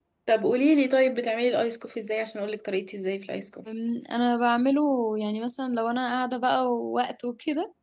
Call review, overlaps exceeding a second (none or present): none